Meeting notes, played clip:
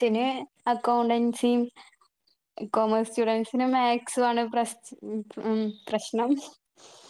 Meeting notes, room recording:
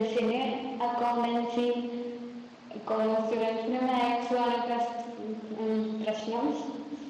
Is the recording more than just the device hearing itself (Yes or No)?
No